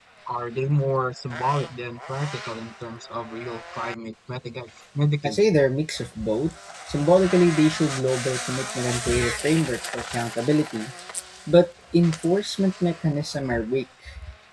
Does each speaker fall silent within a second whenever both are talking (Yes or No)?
Yes